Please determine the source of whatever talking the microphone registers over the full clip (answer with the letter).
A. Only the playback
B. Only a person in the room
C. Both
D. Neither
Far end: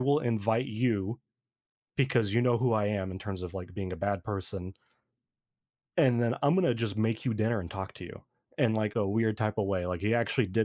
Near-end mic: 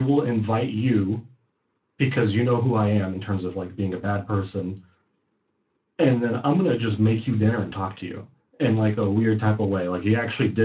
A